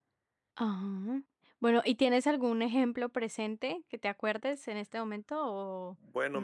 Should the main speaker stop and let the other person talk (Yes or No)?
Yes